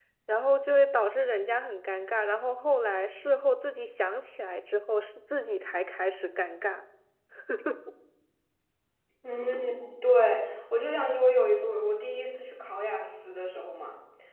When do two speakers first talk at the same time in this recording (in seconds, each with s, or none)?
none